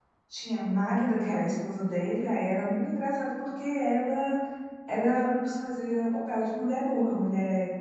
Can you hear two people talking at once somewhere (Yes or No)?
No